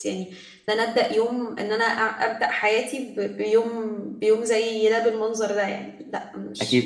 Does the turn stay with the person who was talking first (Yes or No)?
No